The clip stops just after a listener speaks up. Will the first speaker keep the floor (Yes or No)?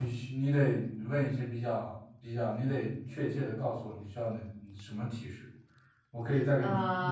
Yes